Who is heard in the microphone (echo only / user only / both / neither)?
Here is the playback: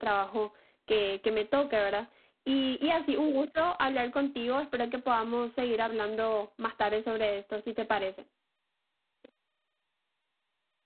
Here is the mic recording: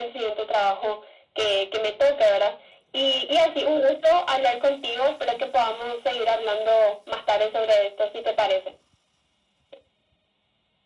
echo only